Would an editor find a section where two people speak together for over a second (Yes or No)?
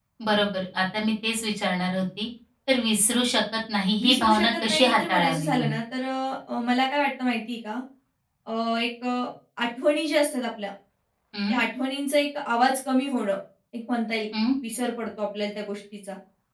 Yes